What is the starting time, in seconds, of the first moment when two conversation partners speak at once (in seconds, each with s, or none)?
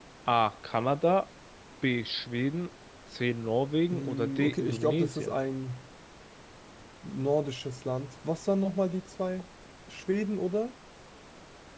3.9 s